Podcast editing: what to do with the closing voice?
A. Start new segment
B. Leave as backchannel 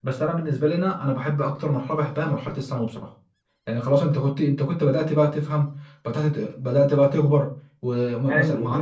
B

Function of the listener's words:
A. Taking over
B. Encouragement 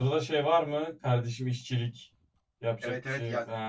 A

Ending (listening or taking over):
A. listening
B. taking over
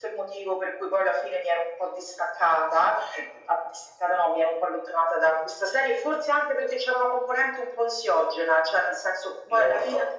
A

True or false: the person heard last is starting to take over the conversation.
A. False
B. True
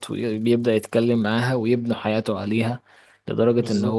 A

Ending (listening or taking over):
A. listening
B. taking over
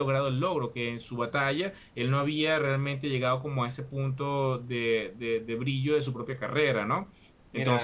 B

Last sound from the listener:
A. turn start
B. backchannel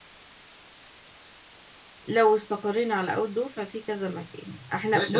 A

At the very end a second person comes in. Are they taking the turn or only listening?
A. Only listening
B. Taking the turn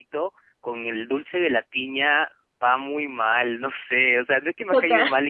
A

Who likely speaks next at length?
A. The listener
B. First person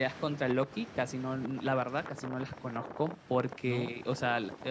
B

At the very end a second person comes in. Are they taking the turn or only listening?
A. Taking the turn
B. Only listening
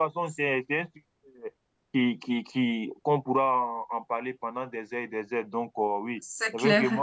B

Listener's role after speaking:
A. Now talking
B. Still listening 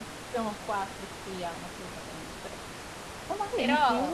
B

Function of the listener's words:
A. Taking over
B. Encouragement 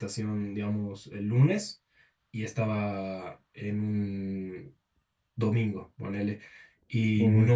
B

